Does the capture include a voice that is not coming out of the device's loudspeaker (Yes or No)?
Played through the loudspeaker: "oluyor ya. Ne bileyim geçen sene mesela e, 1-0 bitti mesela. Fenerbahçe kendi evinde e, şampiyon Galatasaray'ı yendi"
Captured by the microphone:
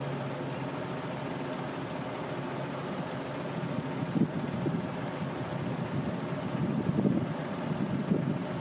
No